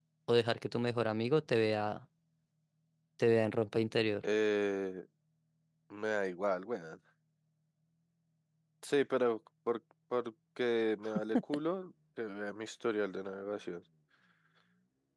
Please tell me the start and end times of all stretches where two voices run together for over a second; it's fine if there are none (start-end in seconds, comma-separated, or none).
none